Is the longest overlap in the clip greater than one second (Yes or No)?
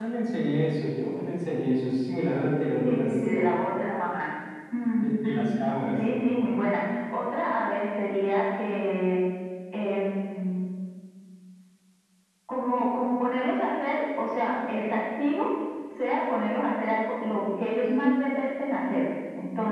No